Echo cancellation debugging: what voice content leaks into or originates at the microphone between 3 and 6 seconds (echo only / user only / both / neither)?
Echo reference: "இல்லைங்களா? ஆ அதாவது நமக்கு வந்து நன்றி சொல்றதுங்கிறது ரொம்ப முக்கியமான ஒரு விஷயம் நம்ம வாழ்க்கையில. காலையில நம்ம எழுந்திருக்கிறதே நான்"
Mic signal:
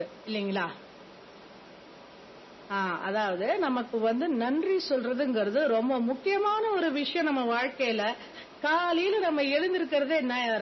echo only